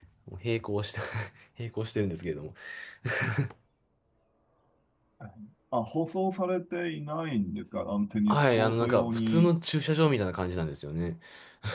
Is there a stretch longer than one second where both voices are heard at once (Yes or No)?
Yes